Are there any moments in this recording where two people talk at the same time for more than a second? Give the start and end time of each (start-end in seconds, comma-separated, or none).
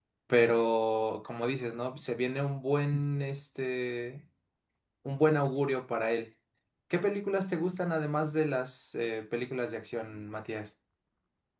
none